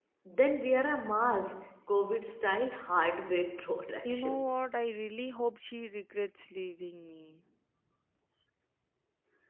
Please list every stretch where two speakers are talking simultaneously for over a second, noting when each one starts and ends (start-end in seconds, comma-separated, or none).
none